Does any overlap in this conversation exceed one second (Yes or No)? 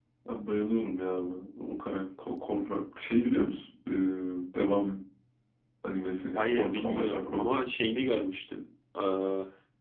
Yes